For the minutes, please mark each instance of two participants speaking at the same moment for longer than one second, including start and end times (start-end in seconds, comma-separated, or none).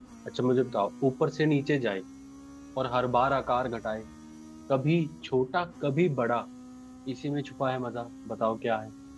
none